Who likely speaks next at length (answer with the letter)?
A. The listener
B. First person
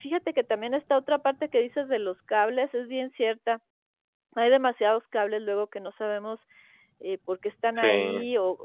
B